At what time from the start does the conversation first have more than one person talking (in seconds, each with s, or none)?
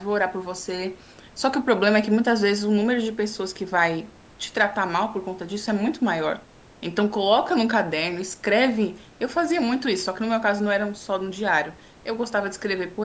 none